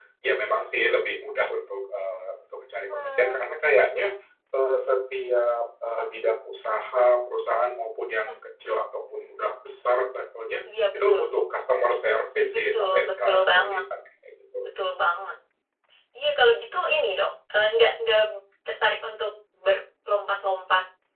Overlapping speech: Yes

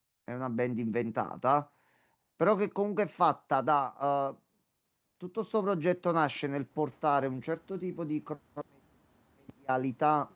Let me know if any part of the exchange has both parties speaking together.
No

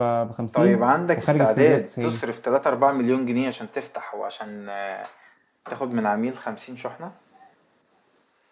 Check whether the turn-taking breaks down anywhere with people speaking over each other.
Yes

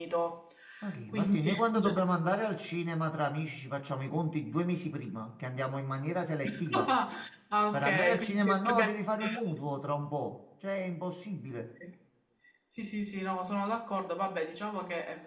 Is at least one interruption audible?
Yes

